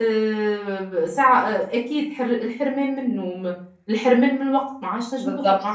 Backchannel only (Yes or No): Yes